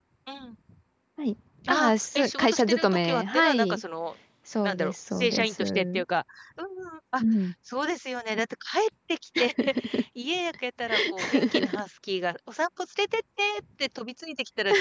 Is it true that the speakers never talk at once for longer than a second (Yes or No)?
No